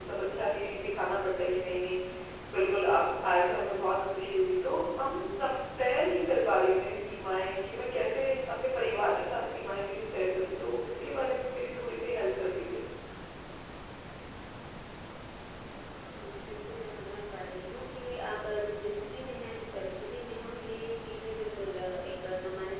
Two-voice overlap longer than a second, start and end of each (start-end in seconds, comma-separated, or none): none